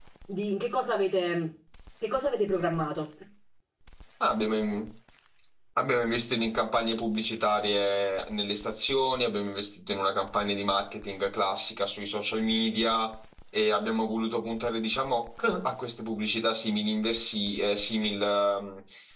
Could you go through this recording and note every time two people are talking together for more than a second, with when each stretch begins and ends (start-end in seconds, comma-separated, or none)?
none